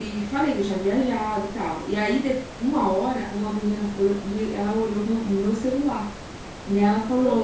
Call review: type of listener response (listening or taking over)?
listening